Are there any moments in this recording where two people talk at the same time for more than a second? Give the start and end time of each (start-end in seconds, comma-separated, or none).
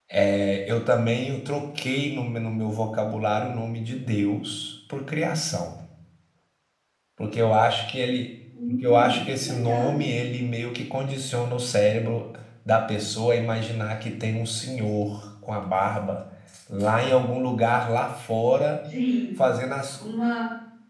8.7-10.1